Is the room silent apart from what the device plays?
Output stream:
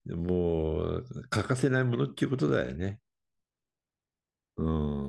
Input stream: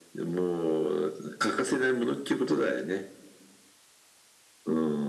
Yes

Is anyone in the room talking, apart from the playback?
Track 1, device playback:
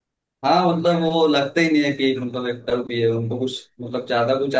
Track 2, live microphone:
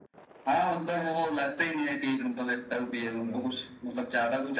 Yes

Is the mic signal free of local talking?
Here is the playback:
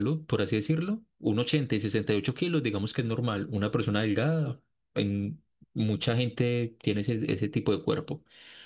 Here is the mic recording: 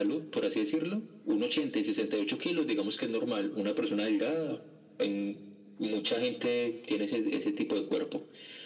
Yes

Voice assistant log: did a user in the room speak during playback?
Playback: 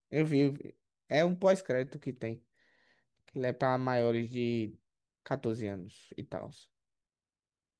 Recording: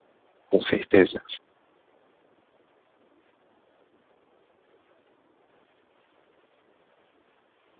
Yes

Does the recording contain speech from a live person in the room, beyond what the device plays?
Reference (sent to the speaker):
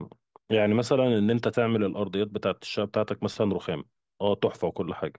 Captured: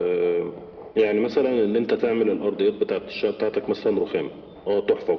No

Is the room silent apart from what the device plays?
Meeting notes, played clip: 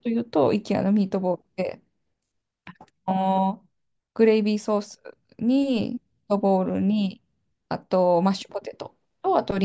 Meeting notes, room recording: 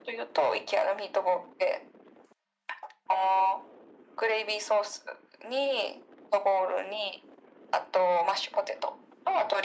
Yes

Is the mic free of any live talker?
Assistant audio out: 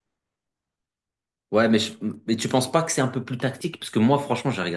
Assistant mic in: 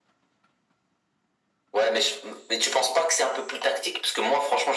Yes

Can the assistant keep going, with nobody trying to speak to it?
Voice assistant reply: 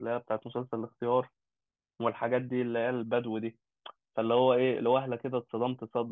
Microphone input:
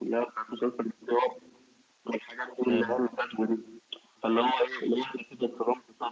No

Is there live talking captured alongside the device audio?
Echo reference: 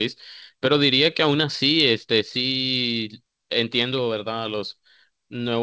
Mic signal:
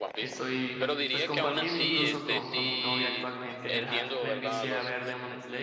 Yes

